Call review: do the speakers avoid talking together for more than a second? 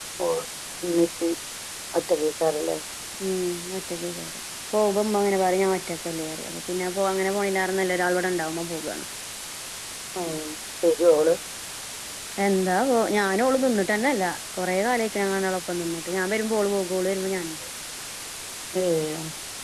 Yes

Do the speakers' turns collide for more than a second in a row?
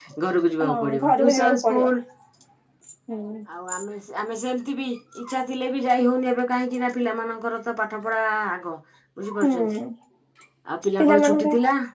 Yes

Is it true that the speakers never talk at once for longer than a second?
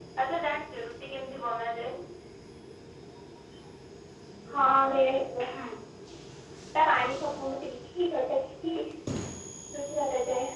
Yes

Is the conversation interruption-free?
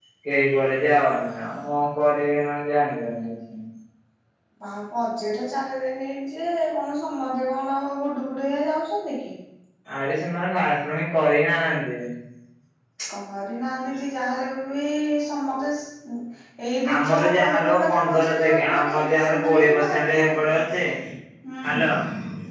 No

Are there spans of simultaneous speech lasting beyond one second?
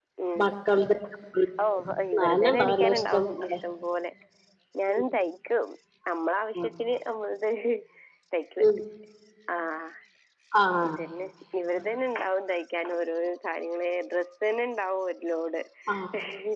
Yes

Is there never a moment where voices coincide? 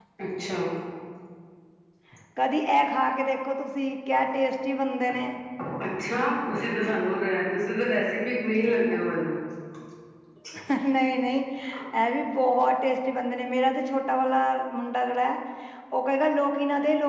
Yes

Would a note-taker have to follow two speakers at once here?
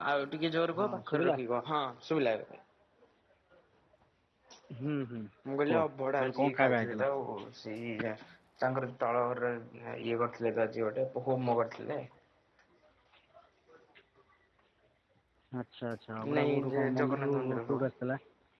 Yes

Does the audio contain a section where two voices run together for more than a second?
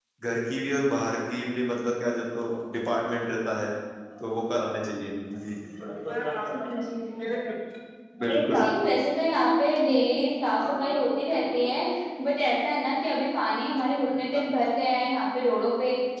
No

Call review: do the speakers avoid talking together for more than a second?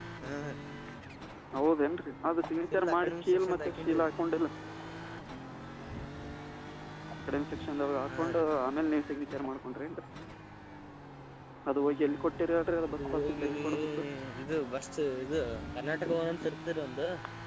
No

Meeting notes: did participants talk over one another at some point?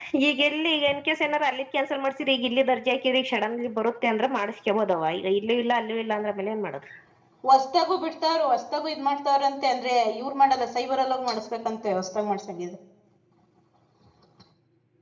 No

